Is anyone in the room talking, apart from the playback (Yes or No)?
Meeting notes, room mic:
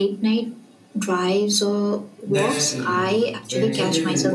Yes